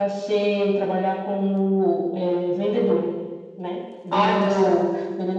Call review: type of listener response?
listening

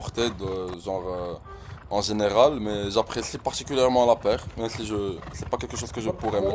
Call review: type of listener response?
taking over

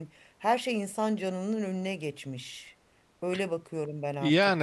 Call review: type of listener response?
taking over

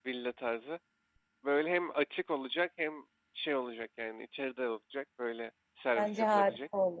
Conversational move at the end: taking over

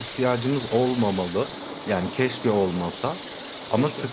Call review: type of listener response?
listening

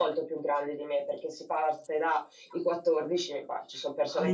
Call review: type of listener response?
taking over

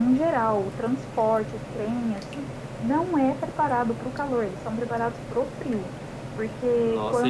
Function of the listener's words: taking over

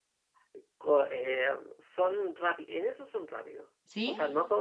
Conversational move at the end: listening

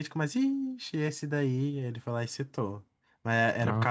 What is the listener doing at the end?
listening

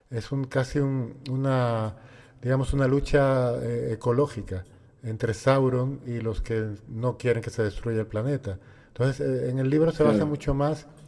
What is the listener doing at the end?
listening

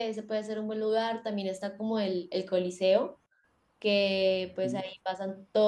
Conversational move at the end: listening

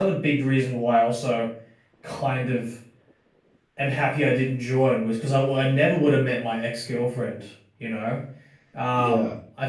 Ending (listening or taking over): listening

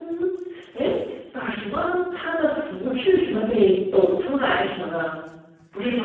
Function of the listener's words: taking over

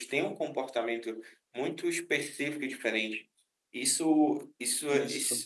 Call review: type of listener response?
listening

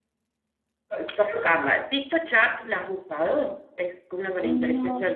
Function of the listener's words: listening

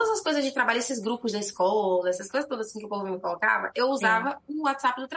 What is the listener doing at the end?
listening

